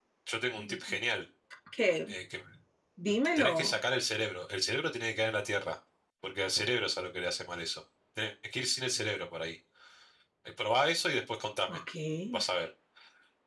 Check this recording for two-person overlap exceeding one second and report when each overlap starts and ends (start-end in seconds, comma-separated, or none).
none